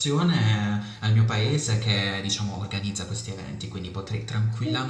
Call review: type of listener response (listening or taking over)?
listening